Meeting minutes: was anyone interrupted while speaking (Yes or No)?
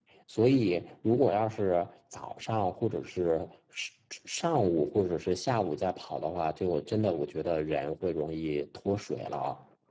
No